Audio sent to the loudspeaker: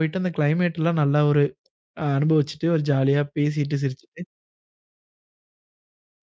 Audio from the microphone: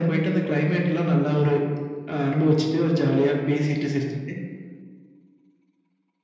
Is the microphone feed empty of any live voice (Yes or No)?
Yes